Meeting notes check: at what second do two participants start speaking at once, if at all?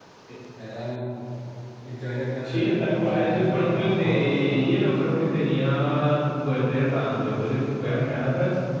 2.4 s

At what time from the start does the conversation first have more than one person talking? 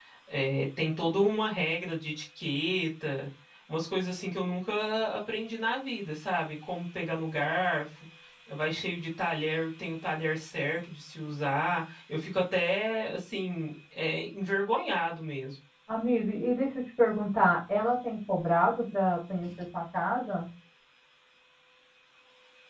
none

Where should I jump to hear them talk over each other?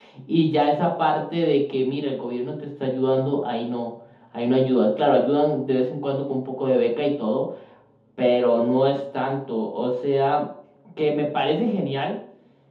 none

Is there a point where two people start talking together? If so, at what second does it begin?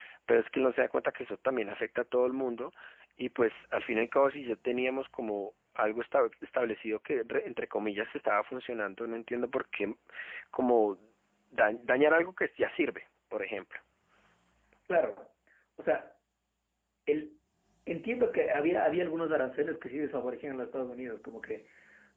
none

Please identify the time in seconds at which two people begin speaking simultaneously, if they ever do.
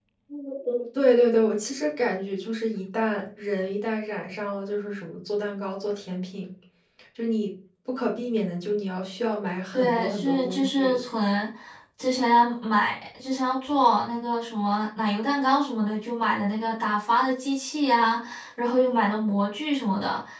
9.7 s

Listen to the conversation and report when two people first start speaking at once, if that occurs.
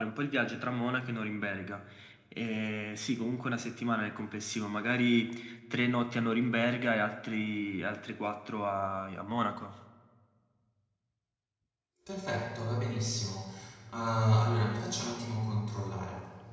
none

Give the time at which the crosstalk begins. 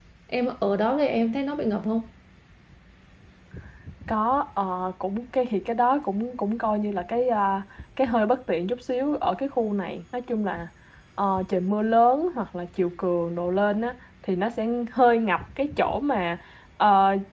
none

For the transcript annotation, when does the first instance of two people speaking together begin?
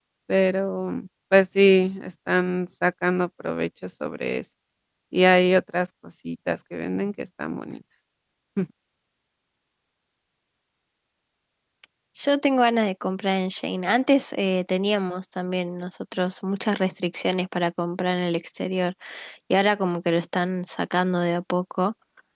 none

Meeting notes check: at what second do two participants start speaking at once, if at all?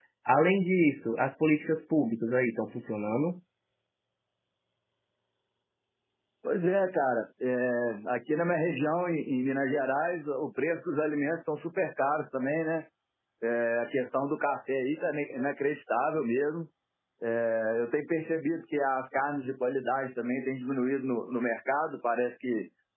none

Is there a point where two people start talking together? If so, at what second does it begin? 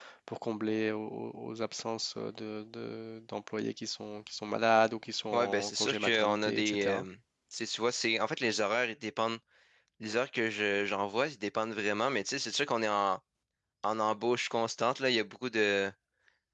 5.3 s

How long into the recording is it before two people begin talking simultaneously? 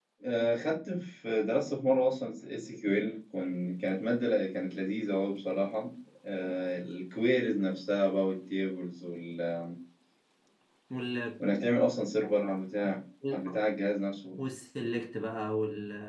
none

